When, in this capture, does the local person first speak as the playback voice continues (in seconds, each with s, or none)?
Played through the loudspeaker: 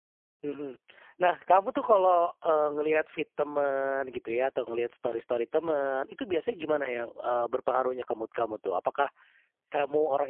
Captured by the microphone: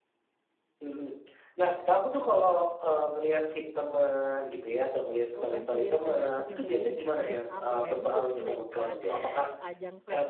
5.3 s